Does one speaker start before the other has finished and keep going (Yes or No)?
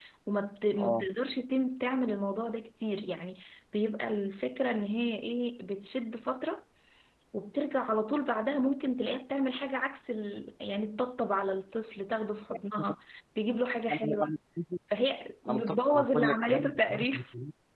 Yes